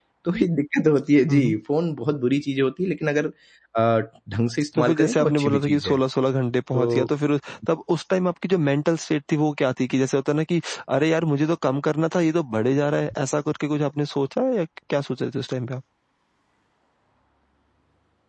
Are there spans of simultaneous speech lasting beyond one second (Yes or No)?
Yes